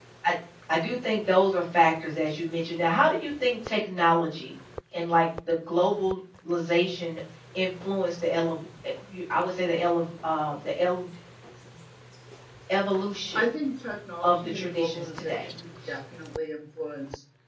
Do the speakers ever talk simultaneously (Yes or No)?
Yes